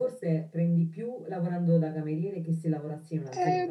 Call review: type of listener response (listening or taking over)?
taking over